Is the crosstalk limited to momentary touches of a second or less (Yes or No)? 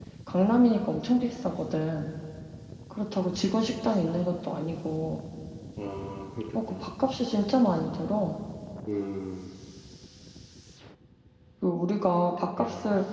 Yes